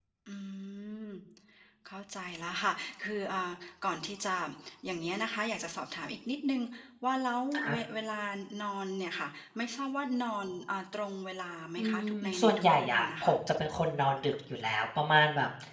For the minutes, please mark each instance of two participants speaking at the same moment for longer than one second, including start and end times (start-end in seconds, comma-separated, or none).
11.8-13.4